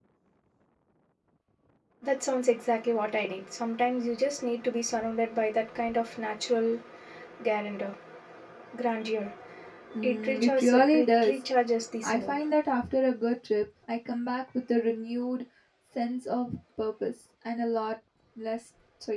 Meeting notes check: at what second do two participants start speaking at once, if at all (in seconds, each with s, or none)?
10.0 s